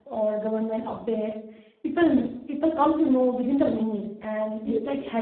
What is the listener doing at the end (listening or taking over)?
listening